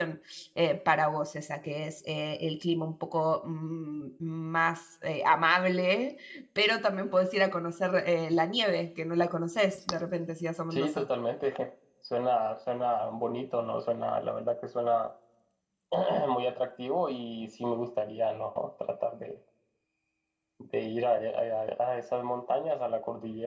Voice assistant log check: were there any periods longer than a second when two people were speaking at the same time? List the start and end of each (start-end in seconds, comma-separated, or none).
none